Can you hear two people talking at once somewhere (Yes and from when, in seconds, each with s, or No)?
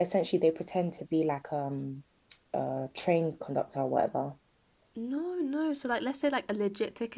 No